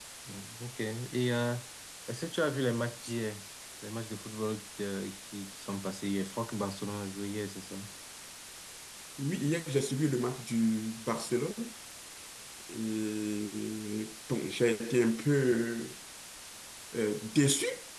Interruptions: none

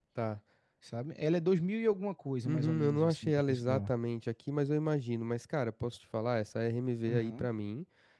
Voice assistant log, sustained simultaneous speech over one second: present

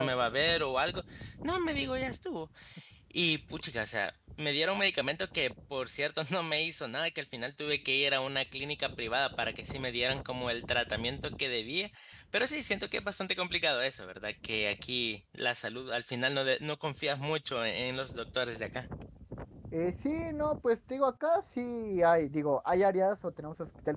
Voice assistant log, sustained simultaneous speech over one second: none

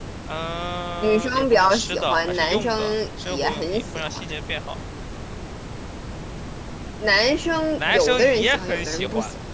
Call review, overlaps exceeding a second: present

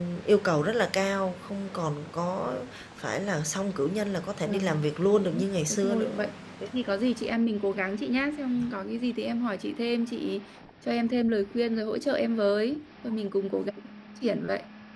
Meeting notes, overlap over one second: present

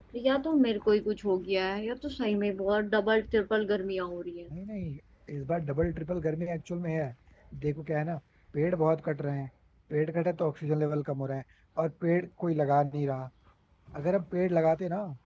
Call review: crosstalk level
none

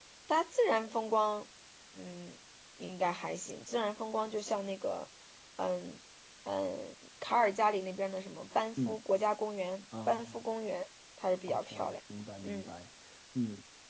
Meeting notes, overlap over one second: none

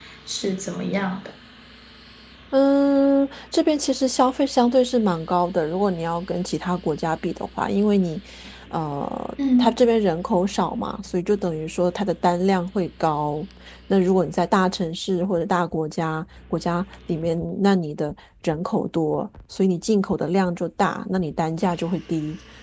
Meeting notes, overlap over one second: none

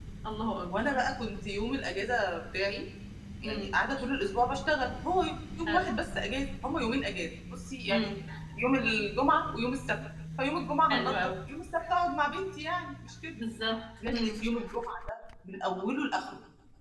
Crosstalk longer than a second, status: none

